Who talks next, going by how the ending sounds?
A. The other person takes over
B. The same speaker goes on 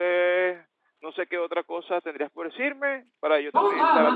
A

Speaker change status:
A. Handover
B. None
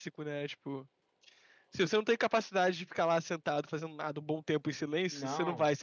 A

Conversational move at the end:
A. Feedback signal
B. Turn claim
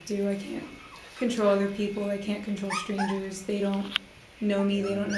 A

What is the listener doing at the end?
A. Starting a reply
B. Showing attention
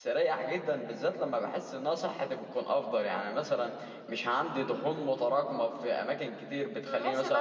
A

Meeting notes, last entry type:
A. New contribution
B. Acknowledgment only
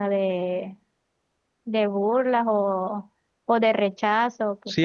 A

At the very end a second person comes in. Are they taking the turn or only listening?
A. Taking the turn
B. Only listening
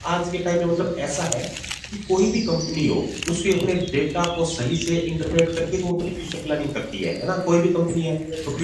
B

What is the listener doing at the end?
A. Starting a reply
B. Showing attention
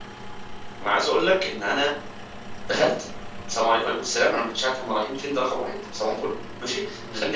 B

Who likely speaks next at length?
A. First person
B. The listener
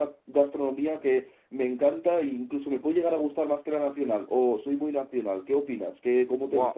B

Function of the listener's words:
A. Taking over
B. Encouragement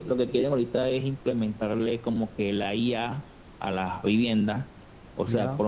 B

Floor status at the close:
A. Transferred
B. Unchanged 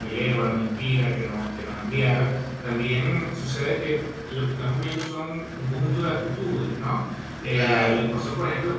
B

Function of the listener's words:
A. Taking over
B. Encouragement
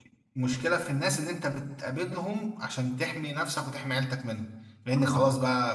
B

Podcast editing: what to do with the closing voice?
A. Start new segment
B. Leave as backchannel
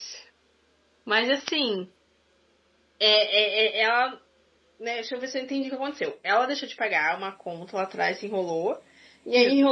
B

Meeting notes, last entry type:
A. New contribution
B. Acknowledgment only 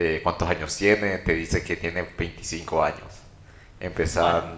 B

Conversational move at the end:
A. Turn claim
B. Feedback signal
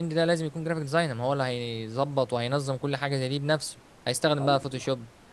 B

